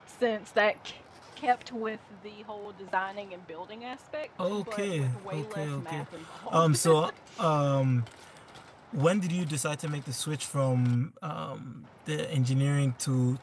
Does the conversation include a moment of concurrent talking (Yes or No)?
Yes